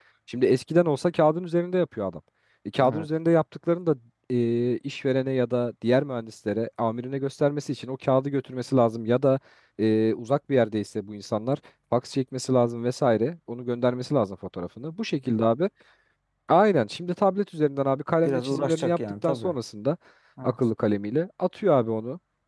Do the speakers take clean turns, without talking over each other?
No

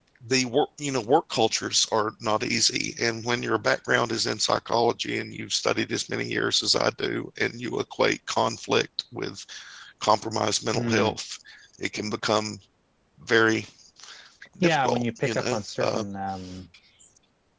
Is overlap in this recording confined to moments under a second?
No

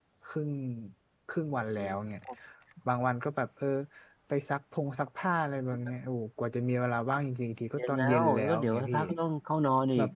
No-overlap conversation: No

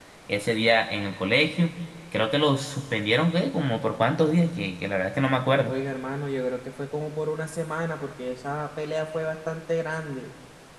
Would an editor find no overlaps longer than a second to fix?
Yes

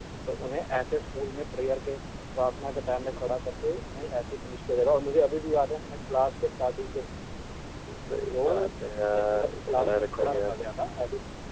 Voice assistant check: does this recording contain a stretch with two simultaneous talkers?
Yes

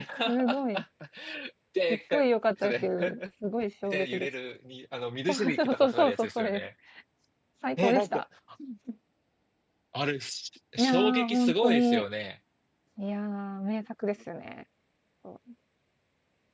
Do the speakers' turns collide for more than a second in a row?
Yes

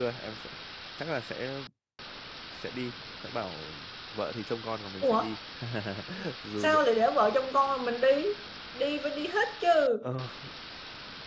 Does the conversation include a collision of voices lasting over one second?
No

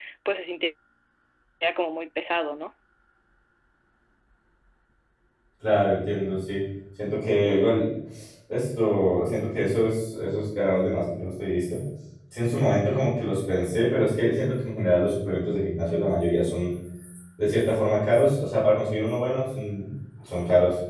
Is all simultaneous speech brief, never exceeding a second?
Yes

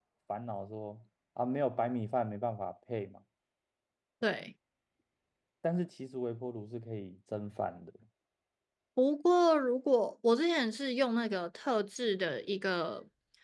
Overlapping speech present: No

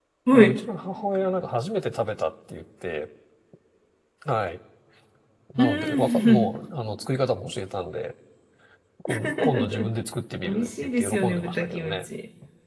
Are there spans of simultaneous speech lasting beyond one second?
Yes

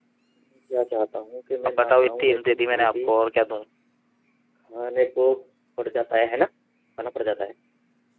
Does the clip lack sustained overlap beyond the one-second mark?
No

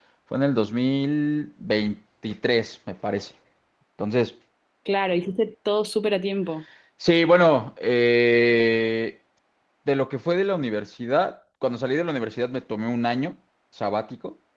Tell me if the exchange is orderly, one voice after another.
Yes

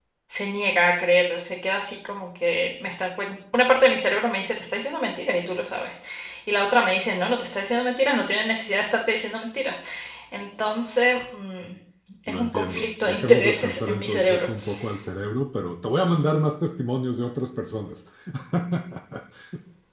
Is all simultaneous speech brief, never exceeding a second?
No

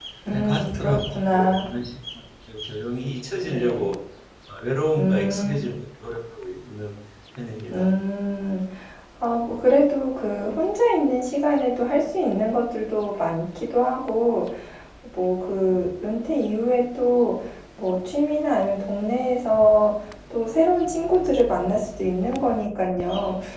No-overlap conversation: No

